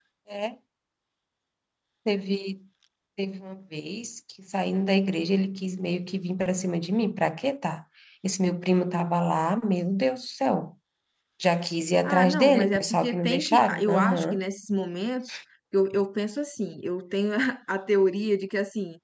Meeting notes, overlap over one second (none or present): present